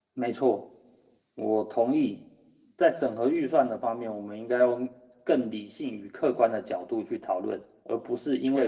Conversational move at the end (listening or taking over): listening